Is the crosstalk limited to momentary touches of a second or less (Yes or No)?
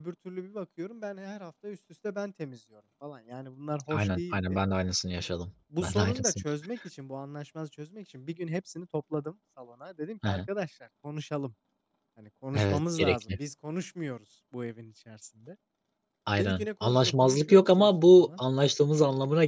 No